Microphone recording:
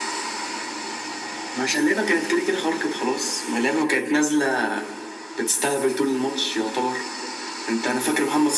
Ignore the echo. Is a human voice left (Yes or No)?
No